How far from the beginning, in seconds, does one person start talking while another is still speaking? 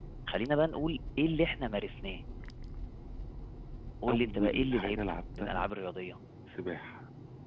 4.1 s

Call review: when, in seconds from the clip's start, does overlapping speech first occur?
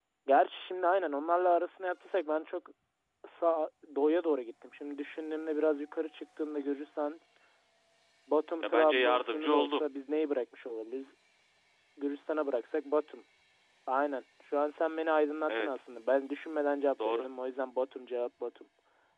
8.6 s

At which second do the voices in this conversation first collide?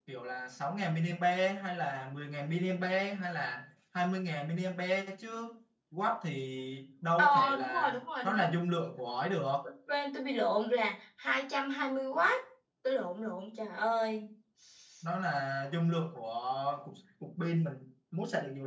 7.2 s

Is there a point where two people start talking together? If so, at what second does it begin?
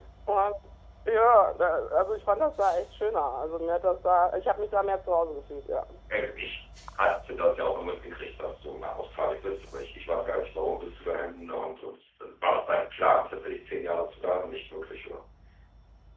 none

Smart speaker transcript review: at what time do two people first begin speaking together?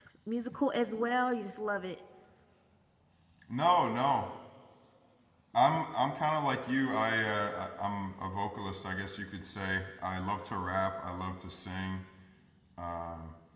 none

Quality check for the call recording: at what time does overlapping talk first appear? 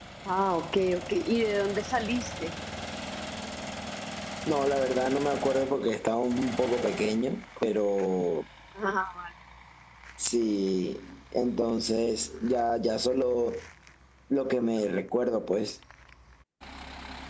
none

